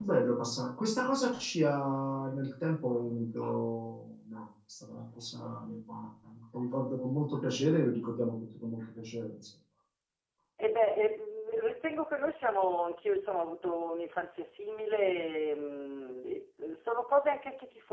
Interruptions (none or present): none